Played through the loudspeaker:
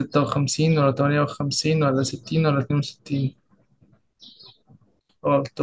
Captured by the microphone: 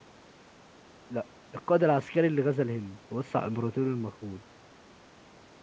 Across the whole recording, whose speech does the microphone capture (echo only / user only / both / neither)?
user only